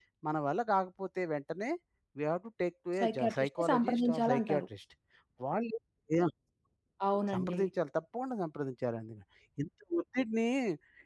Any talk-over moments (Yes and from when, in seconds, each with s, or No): Yes, from 3.0 s